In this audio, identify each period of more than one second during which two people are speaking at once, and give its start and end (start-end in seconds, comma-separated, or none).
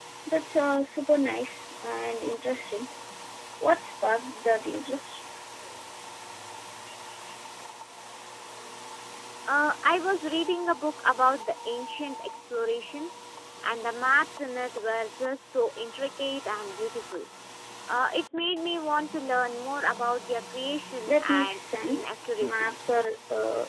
21.1-22.9